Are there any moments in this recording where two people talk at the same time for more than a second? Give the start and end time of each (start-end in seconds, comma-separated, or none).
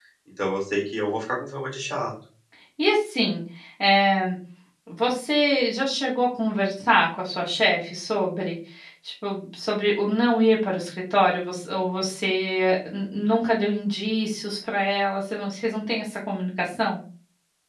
none